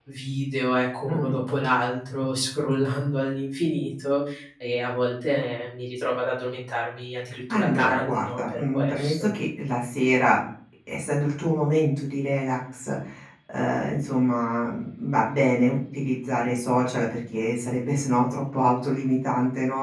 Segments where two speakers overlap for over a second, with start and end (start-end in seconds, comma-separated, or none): 7.5-9.3